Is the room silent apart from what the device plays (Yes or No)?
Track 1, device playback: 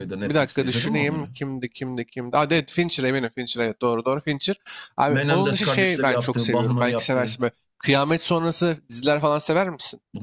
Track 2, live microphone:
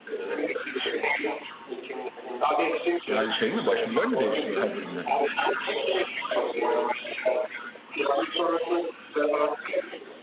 No